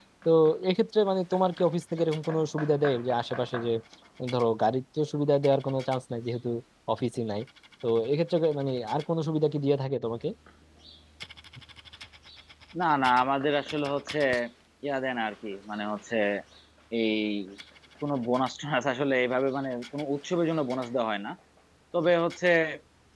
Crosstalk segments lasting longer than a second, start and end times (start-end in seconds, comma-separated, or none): none